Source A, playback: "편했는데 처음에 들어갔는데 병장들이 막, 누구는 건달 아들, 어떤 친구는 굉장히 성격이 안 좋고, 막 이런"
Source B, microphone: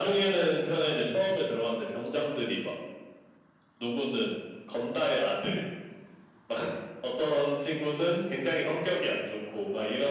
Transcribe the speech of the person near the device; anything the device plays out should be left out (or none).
none